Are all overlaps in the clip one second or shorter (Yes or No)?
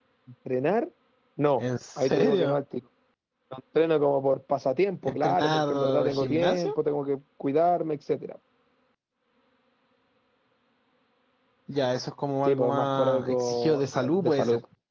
No